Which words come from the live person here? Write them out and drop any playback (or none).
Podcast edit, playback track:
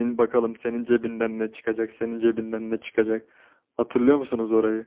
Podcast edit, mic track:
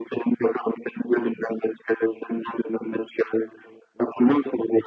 none